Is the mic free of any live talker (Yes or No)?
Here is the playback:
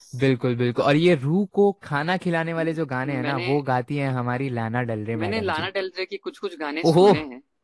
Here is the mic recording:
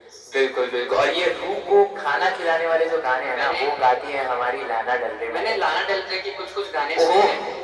Yes